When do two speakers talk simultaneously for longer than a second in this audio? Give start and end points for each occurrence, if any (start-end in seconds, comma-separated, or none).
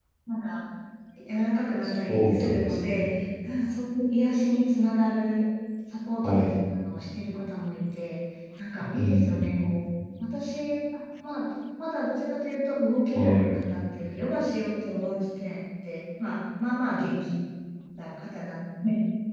1.8-3.2